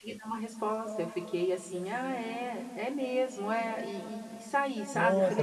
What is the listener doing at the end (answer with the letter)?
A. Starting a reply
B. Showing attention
A